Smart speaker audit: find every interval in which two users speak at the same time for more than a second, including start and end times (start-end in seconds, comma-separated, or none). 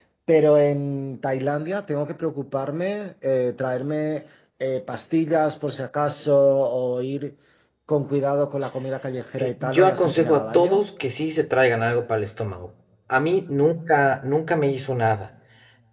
9.4-10.8